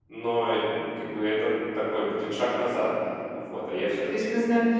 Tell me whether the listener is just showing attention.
No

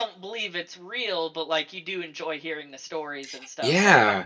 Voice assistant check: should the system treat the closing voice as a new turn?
Yes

